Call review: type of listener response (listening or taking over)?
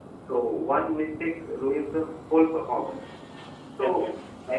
listening